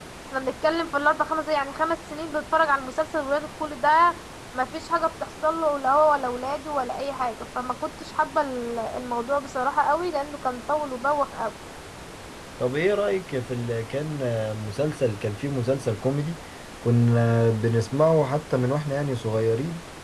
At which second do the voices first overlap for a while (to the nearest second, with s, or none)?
none